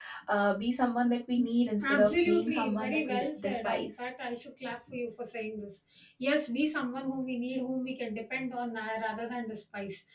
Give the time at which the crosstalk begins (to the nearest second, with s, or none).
2 s